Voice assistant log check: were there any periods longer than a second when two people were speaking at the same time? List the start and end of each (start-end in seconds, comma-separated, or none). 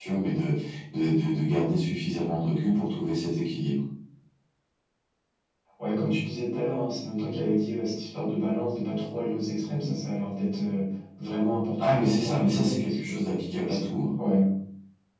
11.8-13.1